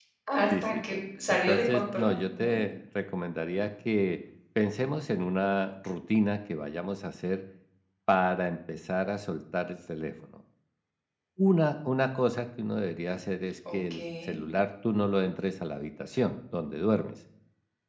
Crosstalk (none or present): present